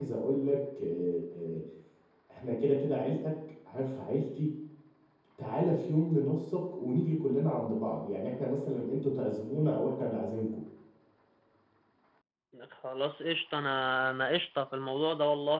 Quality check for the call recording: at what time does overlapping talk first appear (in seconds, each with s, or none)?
none